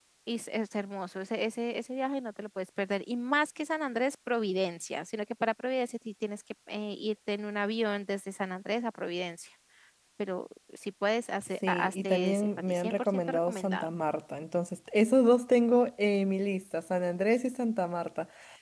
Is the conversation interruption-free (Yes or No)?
No